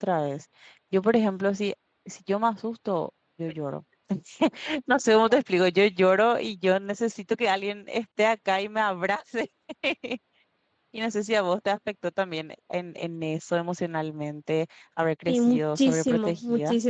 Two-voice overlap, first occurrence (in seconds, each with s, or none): 15.3 s